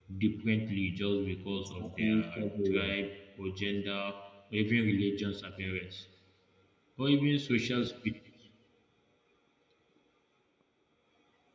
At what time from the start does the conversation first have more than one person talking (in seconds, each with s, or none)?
1.5 s